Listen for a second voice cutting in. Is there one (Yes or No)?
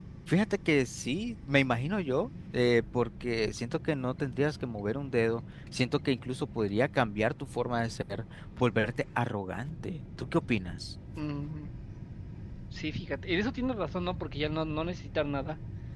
No